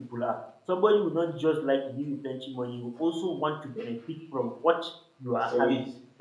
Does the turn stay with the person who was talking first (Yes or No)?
Yes